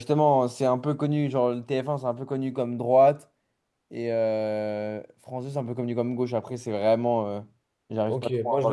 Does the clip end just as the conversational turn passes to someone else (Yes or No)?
Yes